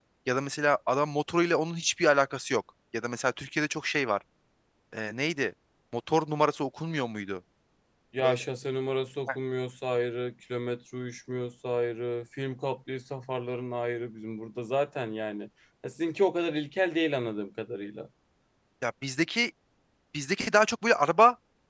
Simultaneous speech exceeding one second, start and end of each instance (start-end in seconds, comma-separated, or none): none